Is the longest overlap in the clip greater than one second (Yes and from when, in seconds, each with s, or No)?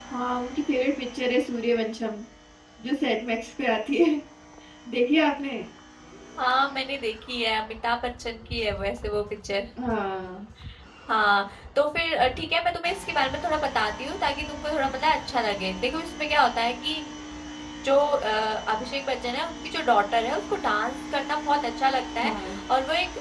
No